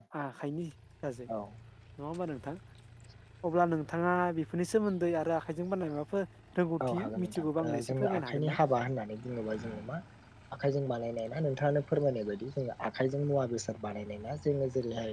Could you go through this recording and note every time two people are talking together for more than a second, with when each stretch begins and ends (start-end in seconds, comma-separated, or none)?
6.9-8.6